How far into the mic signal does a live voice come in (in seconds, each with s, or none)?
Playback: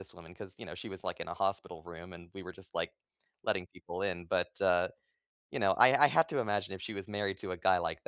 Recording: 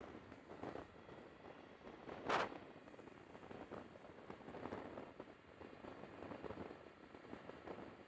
none